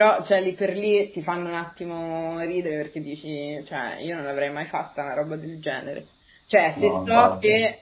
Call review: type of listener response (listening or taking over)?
listening